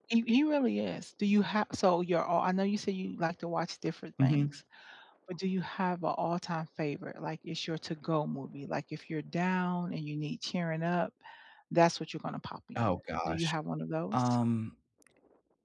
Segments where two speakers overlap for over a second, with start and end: none

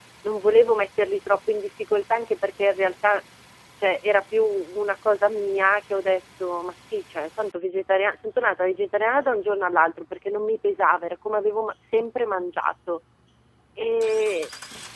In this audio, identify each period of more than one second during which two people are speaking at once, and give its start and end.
none

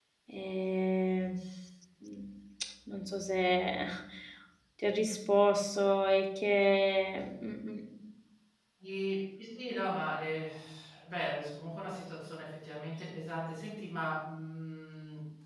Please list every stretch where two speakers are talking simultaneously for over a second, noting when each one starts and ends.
none

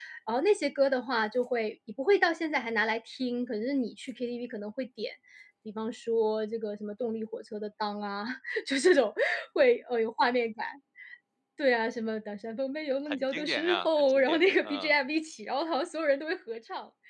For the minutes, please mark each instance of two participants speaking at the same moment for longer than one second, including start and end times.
13.1-14.9

